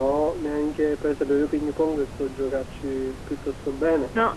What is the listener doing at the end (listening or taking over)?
taking over